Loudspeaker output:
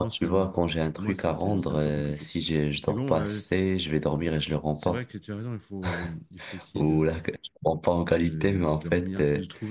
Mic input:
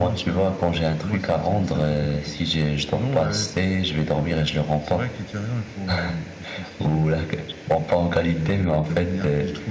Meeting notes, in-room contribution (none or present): none